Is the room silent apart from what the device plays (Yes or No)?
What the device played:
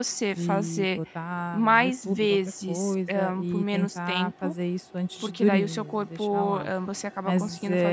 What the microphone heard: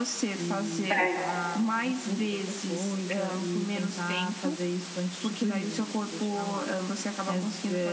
No